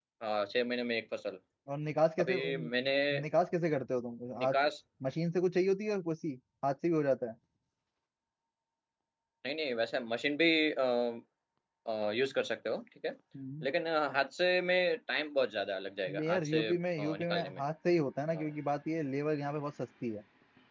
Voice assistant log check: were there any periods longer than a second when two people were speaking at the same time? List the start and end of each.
16.2-17.6

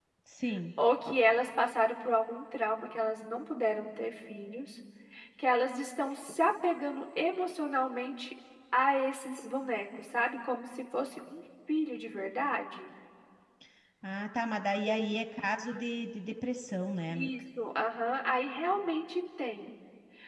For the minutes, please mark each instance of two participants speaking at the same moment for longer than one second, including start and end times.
none

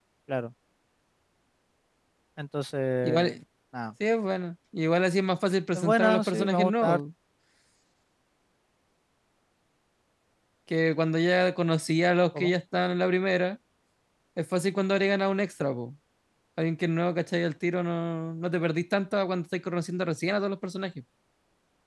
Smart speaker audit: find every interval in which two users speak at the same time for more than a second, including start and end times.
5.8-7.0

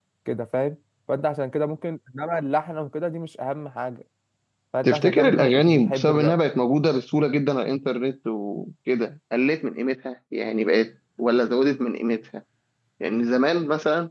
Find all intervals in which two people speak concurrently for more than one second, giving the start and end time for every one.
4.8-6.3

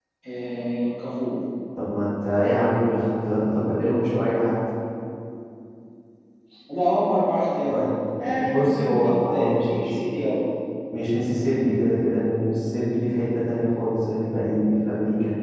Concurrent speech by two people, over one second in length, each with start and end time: 8.4-9.9

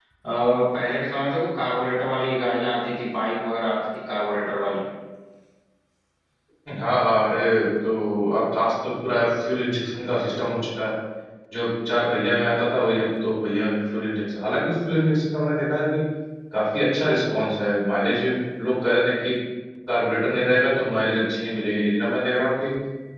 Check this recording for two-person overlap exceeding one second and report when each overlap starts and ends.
none

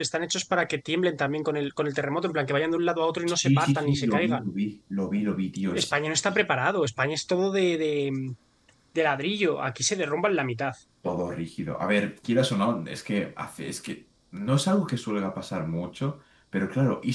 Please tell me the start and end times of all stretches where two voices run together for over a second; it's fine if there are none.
3.3-4.5

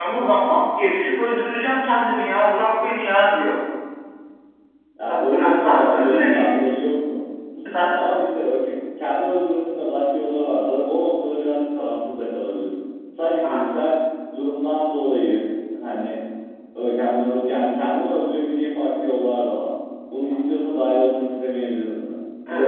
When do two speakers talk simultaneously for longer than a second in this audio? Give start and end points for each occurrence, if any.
5.1-6.7

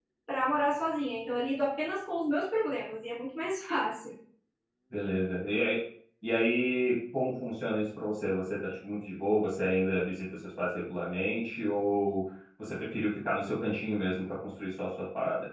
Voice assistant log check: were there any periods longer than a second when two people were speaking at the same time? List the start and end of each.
none

